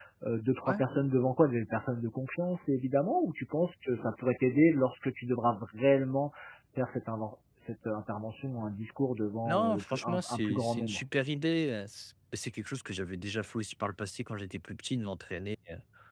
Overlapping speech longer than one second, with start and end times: 9.4-11.0

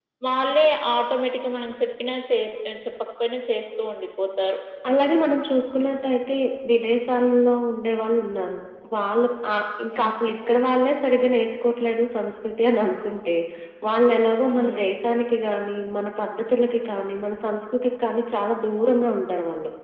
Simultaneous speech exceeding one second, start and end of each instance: none

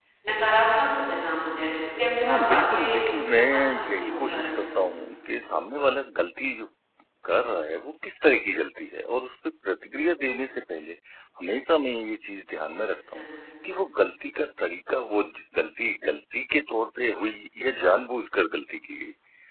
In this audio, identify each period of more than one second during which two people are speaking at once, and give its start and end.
2.2-4.6

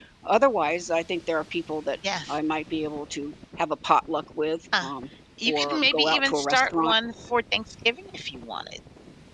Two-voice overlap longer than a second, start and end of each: 5.5-6.9

